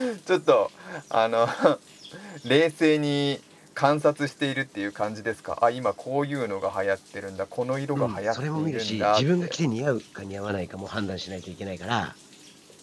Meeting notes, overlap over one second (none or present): present